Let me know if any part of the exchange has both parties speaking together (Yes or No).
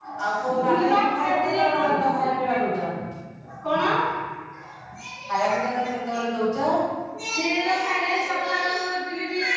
Yes